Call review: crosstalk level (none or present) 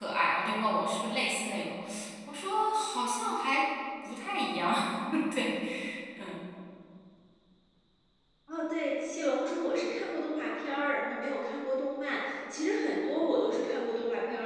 none